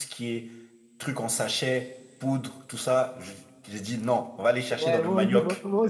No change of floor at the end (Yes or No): No